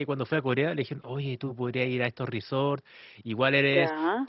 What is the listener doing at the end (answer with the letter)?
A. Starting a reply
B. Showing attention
B